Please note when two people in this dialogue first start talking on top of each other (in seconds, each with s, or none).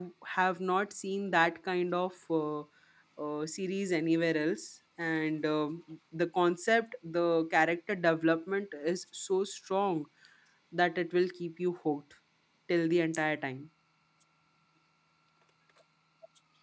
none